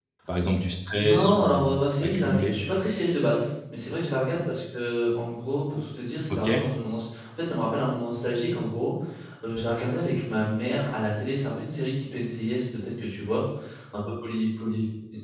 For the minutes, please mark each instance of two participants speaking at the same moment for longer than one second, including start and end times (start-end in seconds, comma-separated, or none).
0.9-2.5